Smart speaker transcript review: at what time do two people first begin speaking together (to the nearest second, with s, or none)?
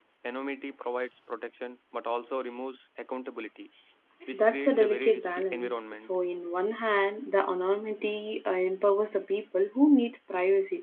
4 s